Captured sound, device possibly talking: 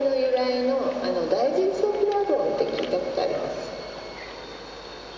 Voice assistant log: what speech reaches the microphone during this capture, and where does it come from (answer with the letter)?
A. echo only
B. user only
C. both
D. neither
A